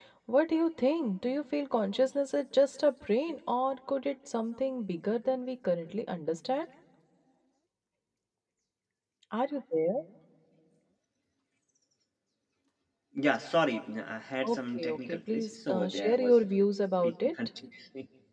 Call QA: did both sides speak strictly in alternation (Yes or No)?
No